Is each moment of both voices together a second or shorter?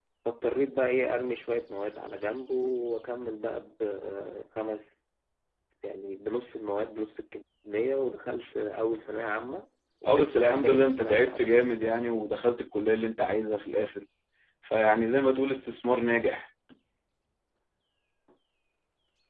No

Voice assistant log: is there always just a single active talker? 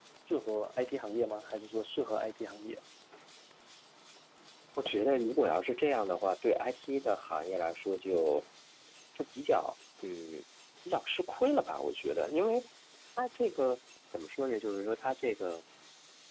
Yes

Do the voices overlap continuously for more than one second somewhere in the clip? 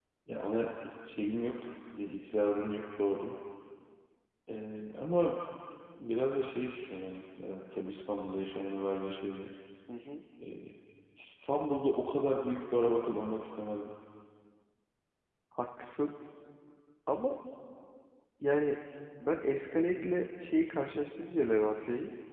No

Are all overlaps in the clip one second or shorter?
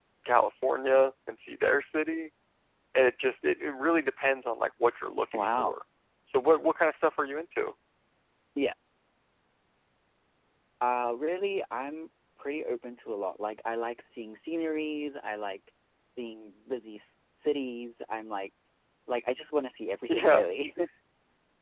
Yes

